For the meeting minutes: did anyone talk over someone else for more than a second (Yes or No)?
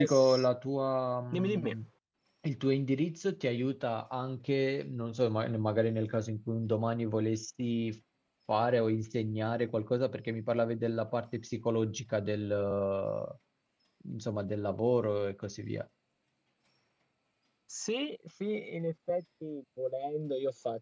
No